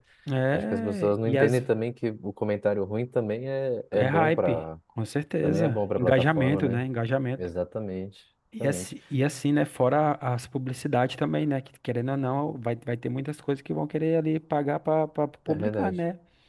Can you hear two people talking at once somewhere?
Yes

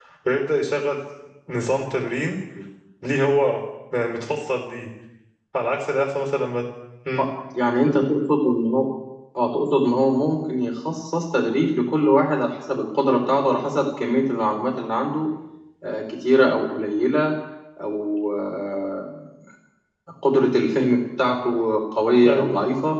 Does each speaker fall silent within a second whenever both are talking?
Yes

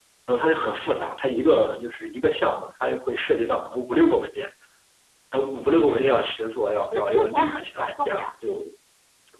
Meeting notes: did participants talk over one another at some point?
Yes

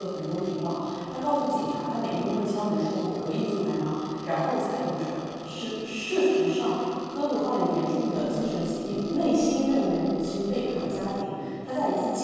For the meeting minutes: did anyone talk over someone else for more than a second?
No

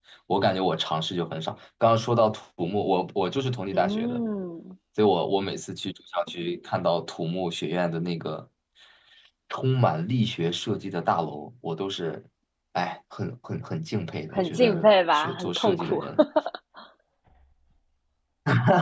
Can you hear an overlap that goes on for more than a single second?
Yes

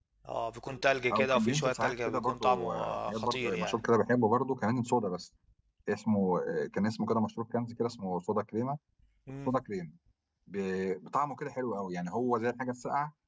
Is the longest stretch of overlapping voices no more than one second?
No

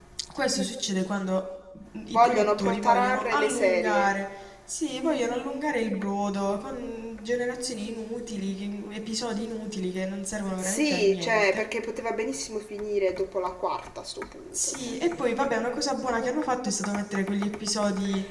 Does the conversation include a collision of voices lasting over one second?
Yes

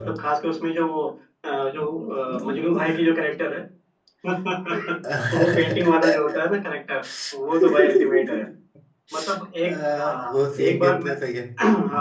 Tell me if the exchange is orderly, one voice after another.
No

